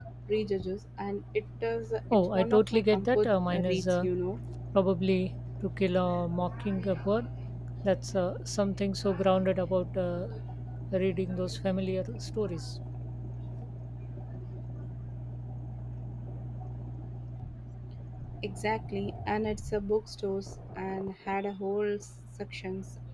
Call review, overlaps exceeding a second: present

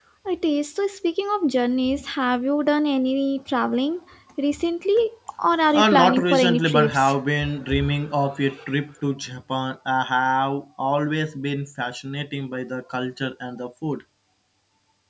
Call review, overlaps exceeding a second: present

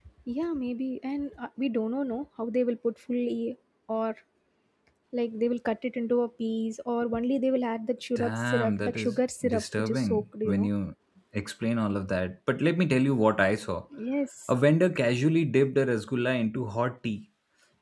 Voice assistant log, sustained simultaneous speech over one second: present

